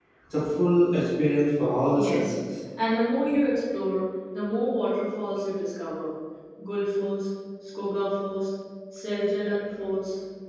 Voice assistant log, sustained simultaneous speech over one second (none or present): none